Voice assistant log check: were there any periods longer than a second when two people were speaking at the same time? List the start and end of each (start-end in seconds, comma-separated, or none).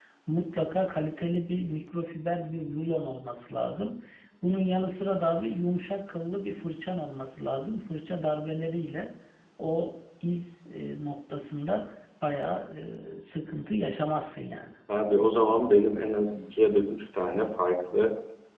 none